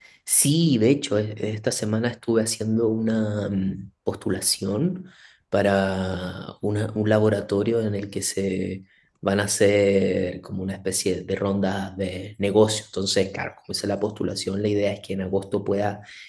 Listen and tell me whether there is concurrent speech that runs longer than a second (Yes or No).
No